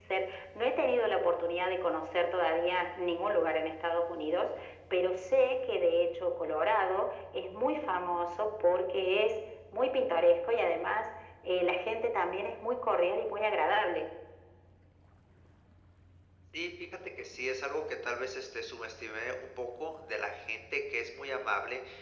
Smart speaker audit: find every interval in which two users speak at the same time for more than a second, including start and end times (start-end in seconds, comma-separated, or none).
none